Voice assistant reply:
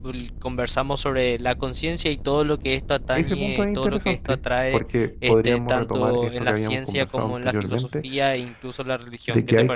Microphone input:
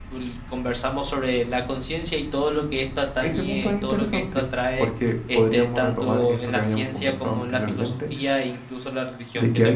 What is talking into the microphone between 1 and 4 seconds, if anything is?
echo only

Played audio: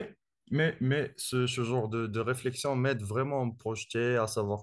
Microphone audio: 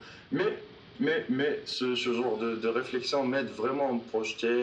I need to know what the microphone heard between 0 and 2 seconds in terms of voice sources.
echo only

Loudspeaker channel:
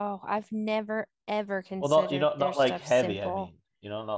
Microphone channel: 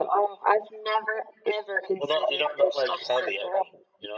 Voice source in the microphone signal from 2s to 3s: echo only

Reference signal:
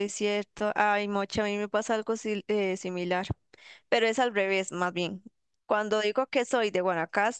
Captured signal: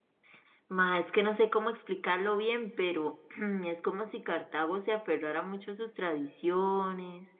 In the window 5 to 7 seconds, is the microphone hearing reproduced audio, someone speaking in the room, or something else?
user only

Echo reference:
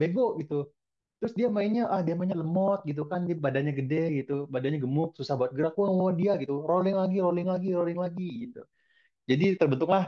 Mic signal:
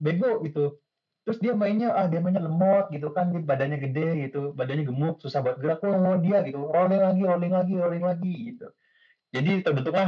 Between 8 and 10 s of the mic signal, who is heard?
echo only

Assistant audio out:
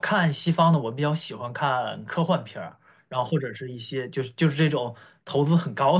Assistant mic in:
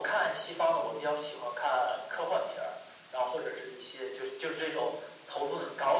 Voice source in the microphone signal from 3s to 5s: echo only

